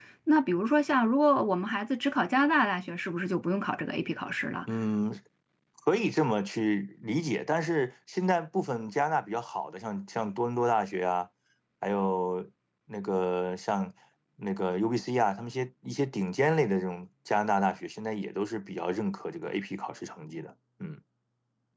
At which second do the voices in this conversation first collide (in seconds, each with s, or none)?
none